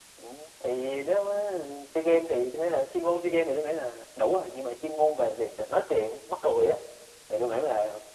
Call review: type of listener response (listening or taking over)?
listening